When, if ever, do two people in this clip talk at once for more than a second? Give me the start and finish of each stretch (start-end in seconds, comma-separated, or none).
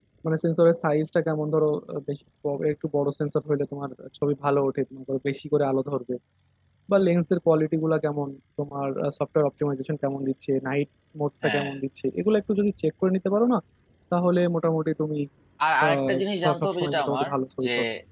15.8-17.3